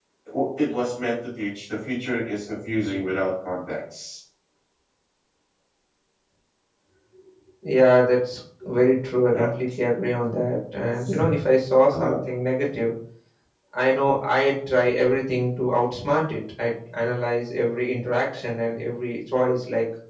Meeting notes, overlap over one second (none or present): none